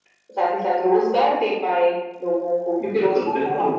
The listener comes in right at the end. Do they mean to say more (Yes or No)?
Yes